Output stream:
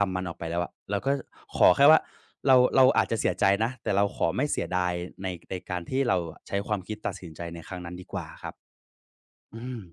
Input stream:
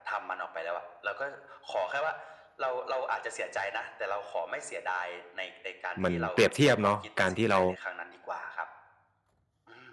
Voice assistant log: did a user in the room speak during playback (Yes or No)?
Yes